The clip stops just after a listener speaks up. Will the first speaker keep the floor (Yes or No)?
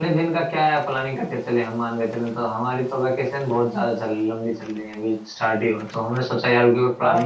No